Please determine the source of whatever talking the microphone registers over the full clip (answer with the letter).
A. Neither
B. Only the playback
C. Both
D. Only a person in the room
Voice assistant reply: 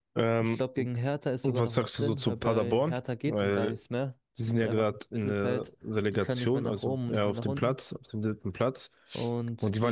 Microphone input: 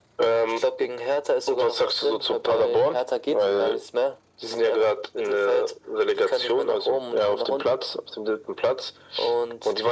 B